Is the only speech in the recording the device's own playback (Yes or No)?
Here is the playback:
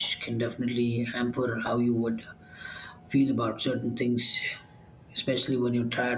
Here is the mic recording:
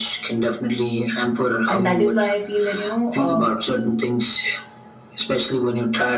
No